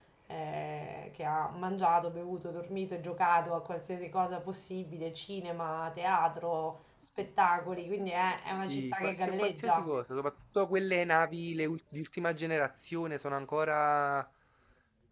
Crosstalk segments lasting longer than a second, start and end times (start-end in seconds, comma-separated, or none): 8.7-9.9